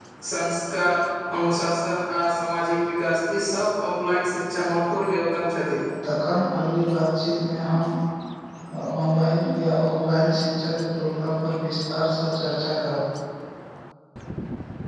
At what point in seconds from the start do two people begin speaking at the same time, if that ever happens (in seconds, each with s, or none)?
none